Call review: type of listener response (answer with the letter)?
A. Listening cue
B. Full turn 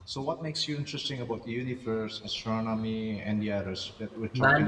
B